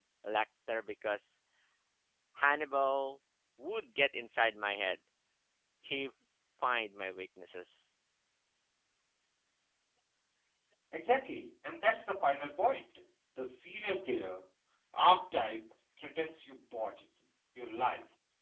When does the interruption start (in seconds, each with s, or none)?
none